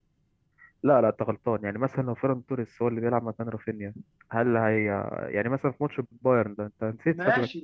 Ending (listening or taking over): taking over